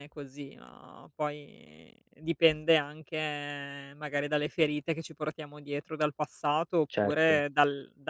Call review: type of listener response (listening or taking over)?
listening